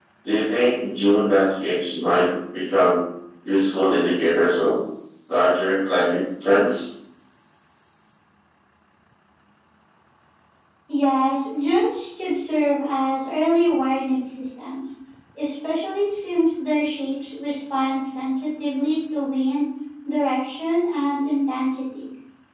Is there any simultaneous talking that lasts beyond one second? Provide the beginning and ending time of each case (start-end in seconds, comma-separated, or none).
none